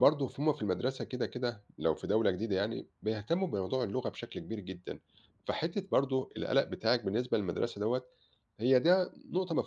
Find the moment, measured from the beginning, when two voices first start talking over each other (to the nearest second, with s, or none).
none